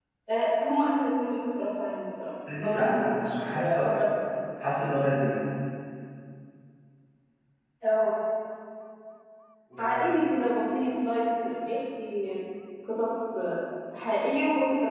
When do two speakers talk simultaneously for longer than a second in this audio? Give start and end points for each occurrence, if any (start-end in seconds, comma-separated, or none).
2.6-3.9